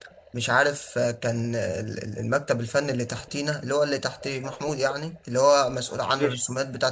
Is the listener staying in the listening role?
Yes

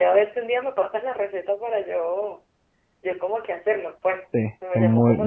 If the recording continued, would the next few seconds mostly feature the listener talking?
Yes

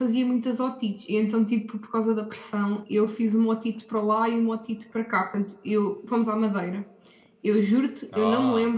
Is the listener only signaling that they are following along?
Yes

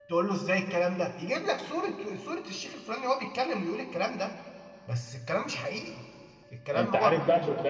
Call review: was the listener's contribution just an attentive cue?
No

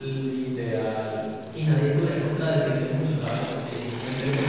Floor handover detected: No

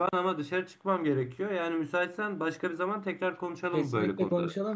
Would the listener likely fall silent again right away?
No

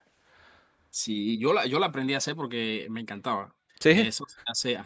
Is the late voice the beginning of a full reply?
No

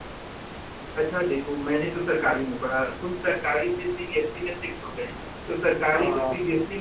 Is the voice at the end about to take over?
No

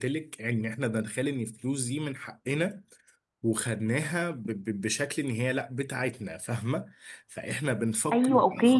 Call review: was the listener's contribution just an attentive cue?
No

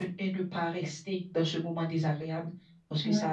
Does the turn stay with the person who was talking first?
Yes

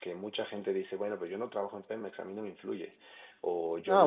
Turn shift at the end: Yes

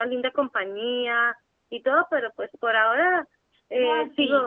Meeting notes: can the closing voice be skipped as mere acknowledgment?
No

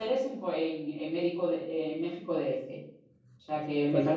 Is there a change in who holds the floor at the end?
No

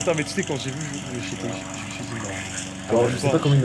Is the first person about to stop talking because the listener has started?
Yes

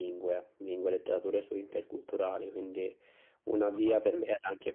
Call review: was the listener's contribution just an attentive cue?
Yes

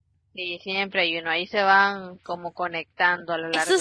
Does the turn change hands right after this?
Yes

